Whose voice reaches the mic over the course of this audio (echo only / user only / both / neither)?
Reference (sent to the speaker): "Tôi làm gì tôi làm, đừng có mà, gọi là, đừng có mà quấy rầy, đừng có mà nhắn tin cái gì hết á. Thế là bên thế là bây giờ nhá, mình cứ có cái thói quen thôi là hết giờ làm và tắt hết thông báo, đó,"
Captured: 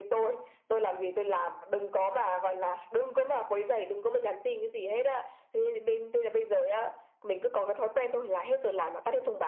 echo only